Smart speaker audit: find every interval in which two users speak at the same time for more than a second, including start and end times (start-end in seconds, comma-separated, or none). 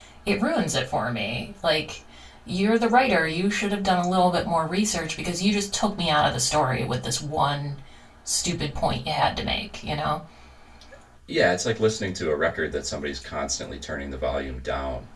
none